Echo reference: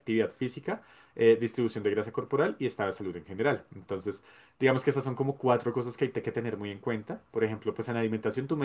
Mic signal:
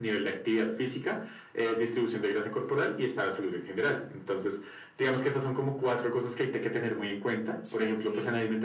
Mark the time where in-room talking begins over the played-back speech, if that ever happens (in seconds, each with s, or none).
7.6 s